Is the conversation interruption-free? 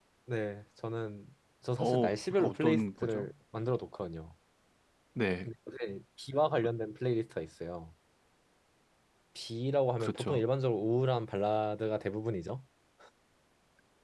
No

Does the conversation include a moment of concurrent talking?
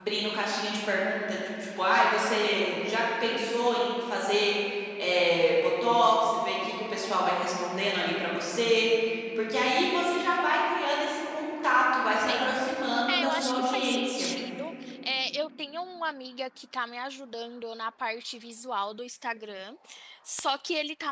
Yes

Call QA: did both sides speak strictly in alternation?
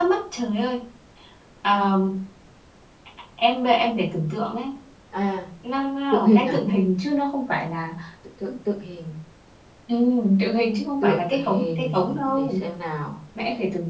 No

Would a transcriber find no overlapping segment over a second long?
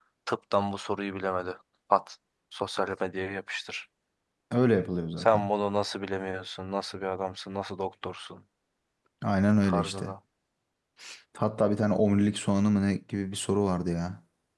Yes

